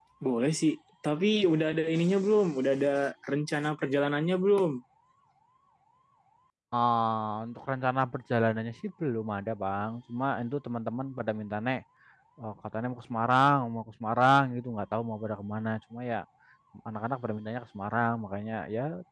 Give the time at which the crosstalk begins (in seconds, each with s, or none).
none